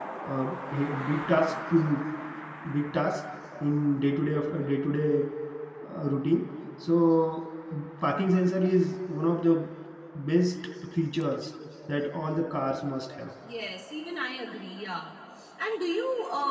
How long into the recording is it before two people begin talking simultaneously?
none

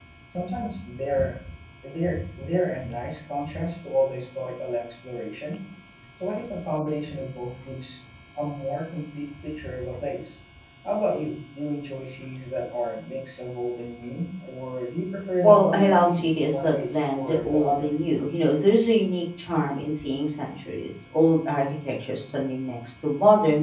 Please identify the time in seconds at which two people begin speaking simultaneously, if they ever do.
15.4 s

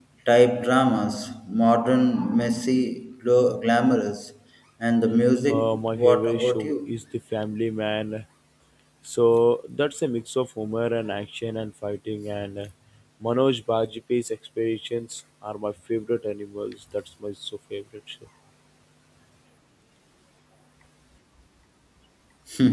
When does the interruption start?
5.5 s

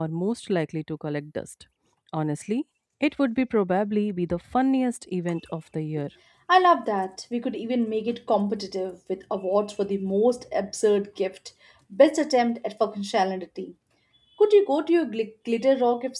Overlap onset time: none

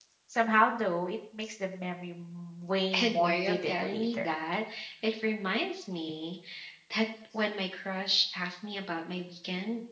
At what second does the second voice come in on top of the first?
2.9 s

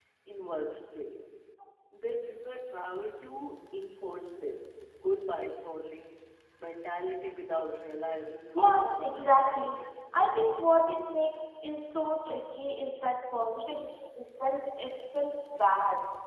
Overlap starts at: 8.6 s

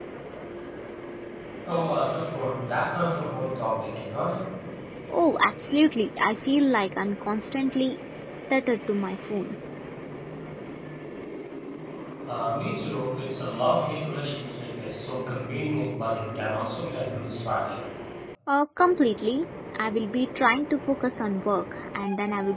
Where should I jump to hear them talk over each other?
none

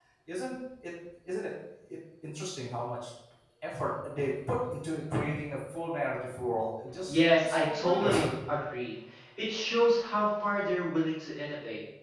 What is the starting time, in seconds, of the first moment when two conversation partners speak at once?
7.1 s

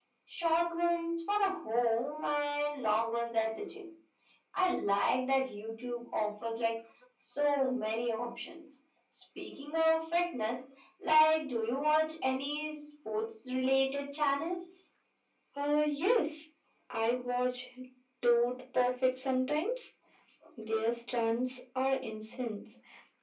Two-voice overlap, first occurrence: none

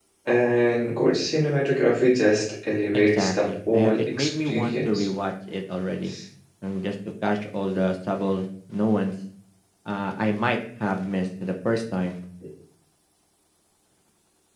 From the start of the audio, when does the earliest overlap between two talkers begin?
2.9 s

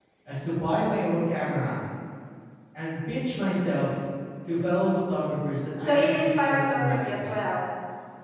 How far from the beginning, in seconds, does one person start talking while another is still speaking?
5.9 s

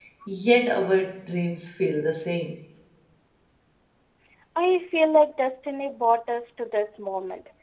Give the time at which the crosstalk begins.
none

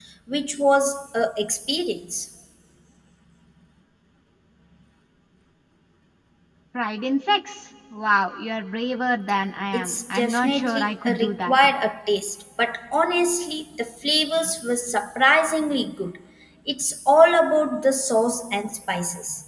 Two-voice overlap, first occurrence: 9.7 s

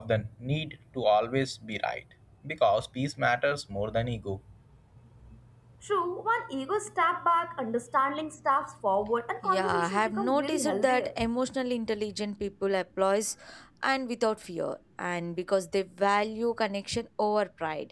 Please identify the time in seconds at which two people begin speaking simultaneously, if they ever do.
9.4 s

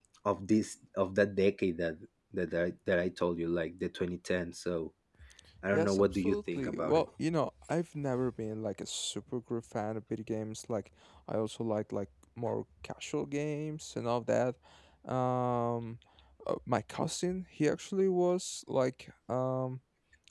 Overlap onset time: 5.7 s

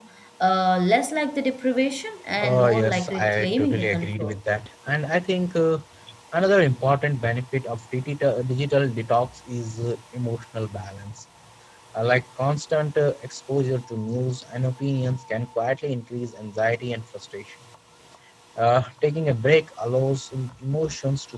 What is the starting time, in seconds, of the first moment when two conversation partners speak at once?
2.4 s

